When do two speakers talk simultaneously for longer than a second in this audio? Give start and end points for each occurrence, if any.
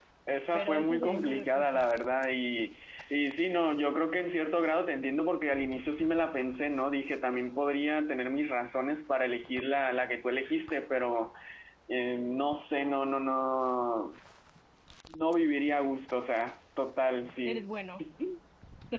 0.5-1.8

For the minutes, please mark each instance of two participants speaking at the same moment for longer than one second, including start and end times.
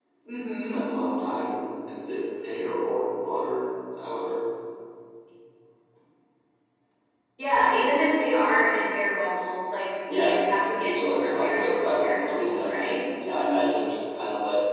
10.8-13.0

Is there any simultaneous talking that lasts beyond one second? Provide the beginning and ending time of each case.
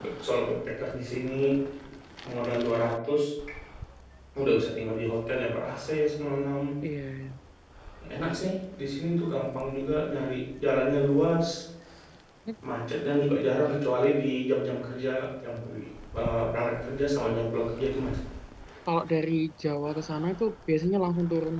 none

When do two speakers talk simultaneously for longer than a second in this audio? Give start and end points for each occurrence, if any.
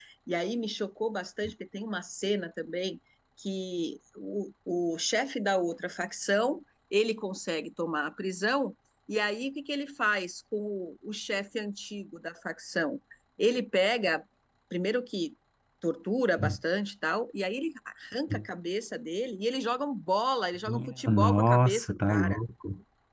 20.7-22.4

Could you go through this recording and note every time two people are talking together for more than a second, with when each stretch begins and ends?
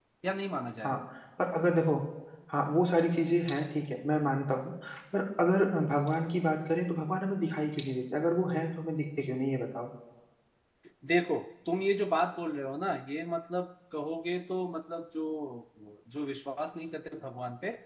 none

